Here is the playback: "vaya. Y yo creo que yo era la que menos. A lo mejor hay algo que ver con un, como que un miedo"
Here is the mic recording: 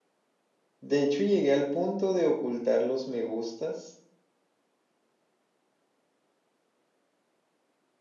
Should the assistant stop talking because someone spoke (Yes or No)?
Yes